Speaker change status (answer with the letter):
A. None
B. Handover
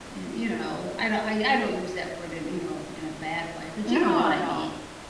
B